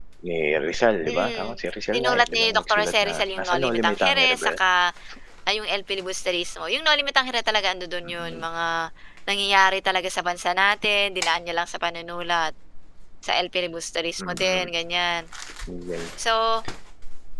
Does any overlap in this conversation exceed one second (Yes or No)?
Yes